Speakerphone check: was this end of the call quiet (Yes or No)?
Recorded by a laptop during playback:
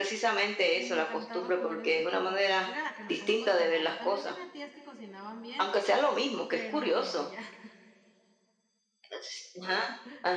No